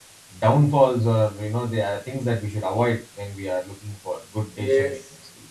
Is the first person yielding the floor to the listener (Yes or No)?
Yes